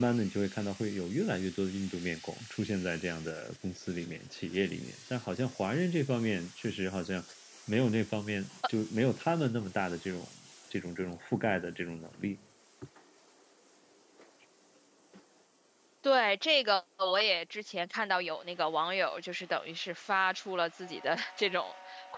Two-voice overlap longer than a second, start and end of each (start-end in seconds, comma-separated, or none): none